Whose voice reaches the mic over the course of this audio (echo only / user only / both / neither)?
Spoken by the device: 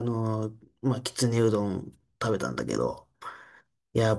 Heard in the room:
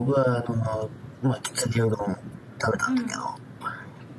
both